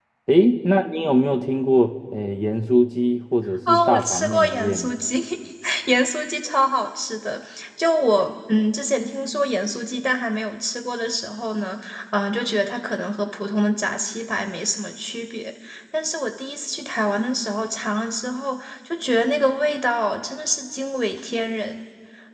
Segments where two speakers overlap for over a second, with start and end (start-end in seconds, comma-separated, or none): 3.7-4.9